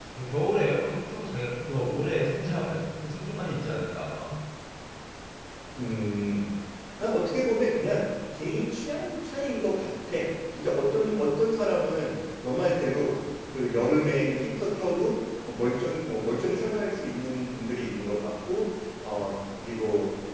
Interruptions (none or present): none